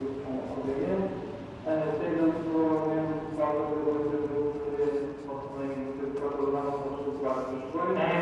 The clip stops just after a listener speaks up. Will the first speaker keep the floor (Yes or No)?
No